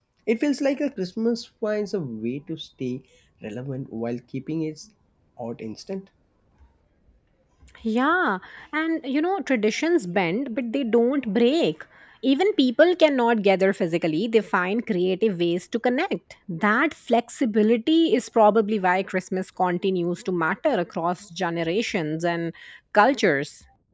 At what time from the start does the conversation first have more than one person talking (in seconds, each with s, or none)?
none